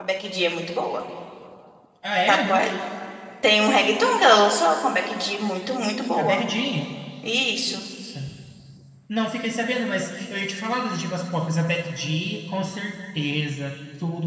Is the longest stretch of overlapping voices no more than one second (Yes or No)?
Yes